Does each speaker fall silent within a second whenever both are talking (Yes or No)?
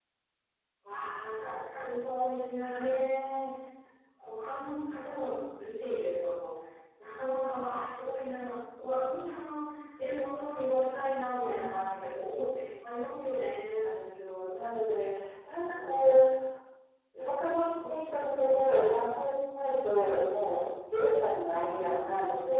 Yes